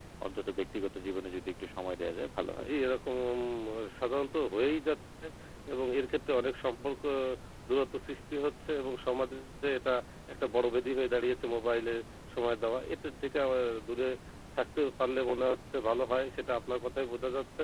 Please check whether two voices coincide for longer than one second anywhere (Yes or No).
No